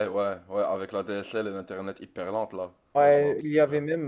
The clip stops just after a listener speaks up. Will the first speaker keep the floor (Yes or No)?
No